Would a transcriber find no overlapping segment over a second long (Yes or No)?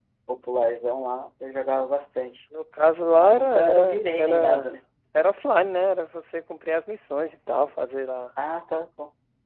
No